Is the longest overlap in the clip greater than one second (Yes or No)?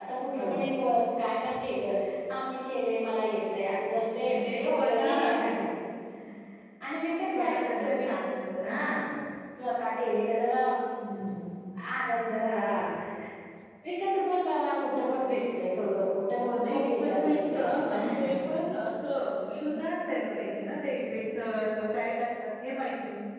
Yes